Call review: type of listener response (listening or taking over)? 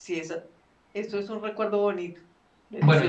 taking over